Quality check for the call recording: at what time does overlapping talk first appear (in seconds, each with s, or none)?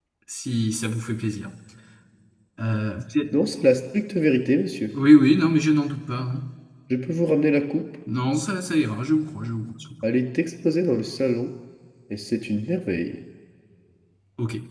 none